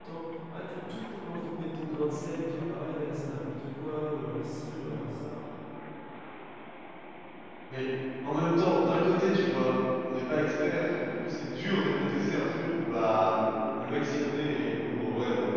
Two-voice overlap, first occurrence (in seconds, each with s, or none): none